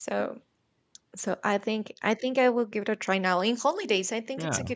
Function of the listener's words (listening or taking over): listening